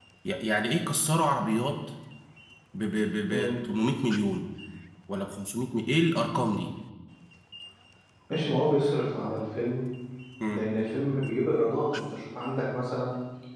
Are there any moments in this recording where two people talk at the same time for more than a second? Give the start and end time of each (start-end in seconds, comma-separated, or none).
none